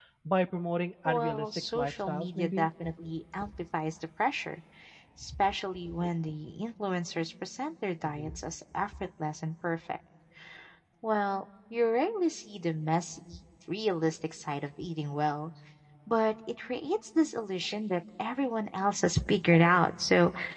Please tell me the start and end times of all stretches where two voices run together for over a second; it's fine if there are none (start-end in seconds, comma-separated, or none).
1.1-2.7